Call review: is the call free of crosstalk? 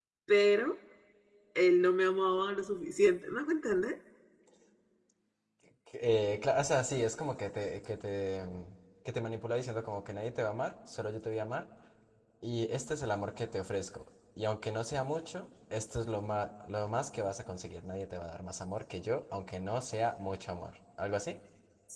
Yes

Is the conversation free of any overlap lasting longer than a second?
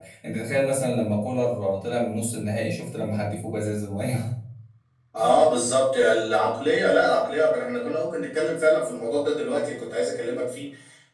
Yes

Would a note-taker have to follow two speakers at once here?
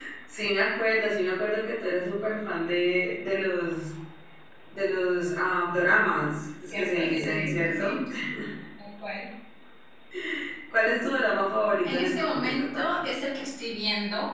Yes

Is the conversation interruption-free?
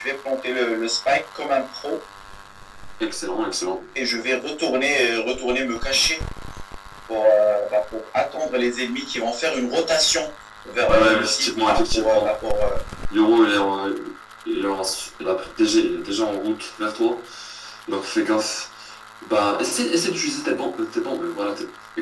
No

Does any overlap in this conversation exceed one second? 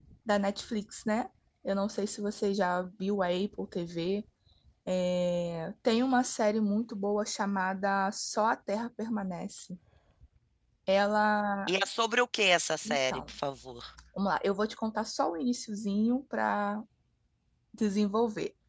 No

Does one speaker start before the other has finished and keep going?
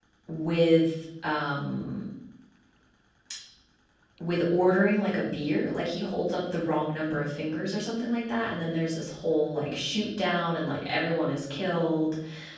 No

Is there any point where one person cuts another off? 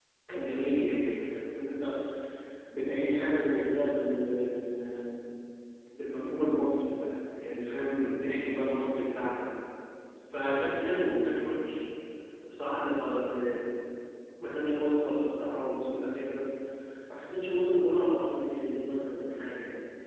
No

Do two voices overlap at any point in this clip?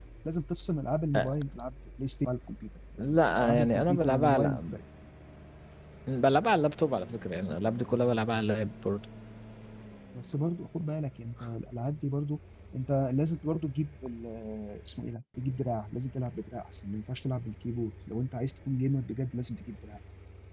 Yes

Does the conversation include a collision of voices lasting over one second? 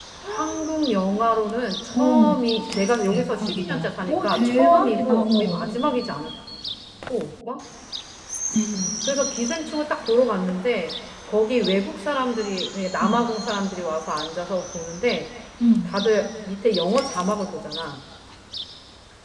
Yes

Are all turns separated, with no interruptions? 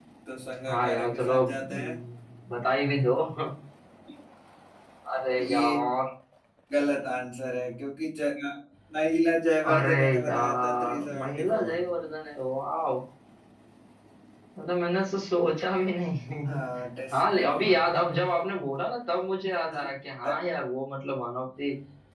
No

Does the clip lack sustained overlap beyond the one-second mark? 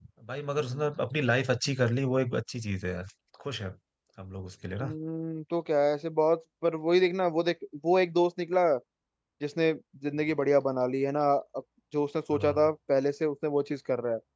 Yes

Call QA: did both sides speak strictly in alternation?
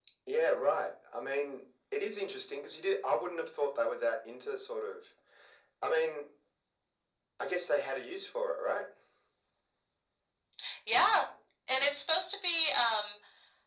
Yes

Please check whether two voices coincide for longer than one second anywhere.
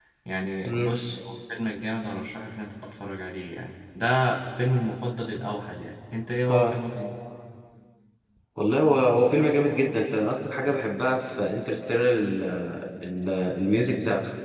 No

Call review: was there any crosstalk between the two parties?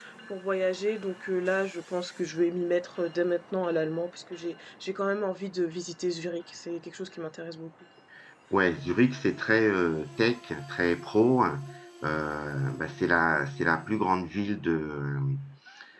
No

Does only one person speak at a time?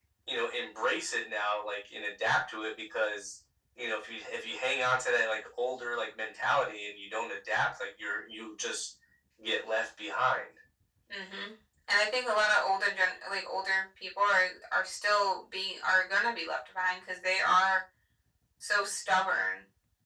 Yes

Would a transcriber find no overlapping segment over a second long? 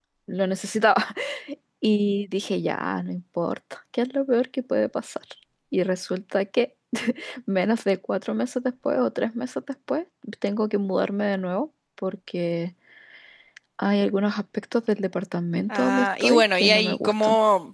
No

